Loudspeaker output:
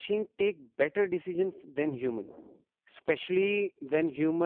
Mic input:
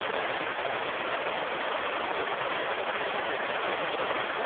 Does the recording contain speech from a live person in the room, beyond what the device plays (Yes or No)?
No